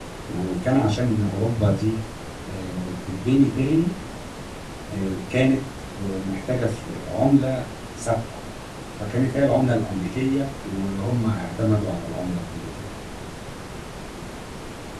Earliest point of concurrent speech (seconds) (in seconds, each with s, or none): none